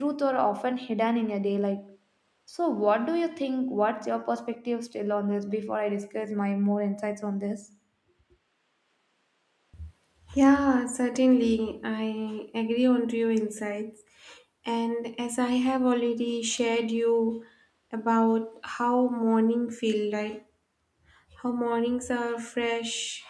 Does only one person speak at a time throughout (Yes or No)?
Yes